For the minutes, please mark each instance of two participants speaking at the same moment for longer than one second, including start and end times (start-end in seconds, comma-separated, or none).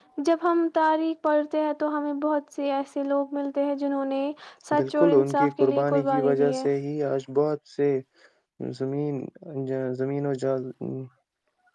4.8-6.7